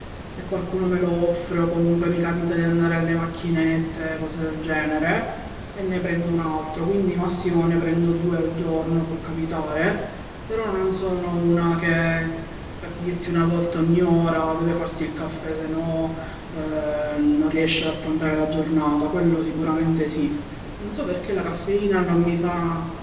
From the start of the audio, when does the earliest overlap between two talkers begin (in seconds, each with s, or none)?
none